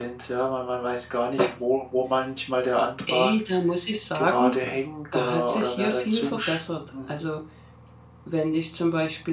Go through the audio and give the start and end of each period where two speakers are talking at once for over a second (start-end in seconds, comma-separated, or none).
5.1-6.4